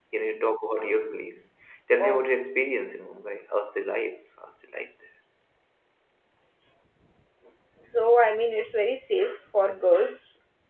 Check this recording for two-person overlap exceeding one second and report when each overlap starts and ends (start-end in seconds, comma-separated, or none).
none